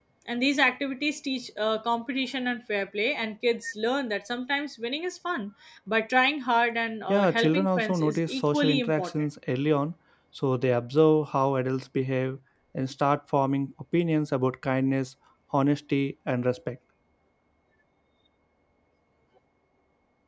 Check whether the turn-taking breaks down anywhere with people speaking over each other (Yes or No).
Yes